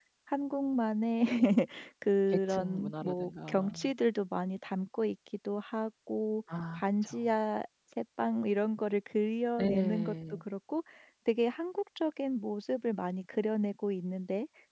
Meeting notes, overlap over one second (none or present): present